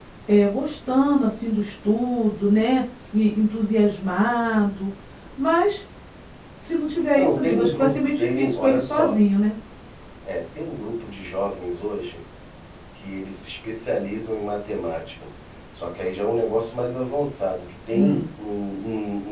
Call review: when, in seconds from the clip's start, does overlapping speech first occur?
7 s

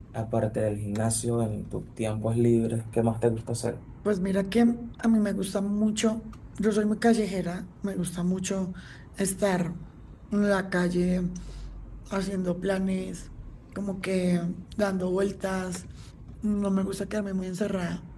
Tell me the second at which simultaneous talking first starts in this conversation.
none

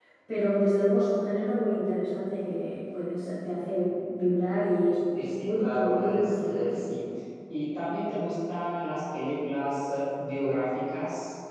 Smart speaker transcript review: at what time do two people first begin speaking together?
5 s

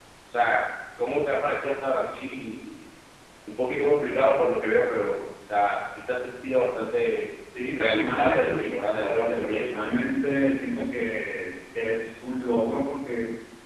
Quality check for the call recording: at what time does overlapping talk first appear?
8 s

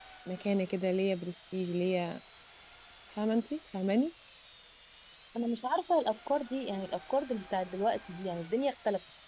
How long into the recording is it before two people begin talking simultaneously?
none

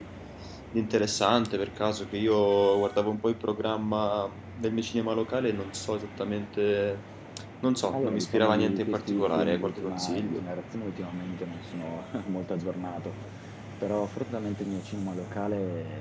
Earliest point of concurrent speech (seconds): 8 s

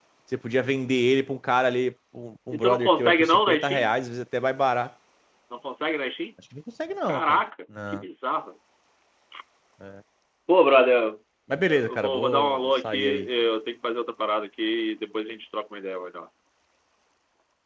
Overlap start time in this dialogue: 3 s

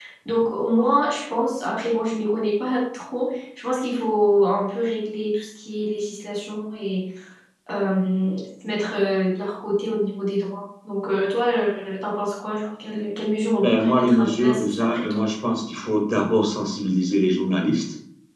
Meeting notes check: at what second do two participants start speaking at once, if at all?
14 s

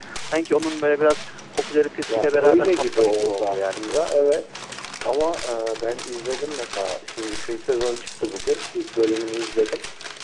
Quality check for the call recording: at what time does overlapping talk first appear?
2 s

